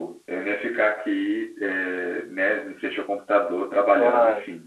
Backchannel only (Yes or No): Yes